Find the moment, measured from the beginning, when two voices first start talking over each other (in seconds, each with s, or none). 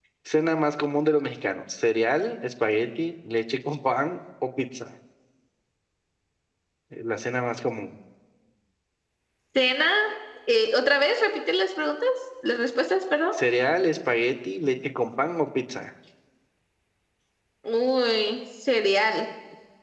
none